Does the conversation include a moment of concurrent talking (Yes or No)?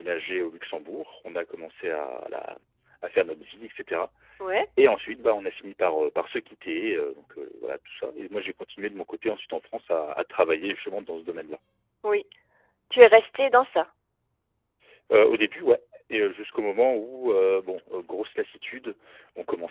No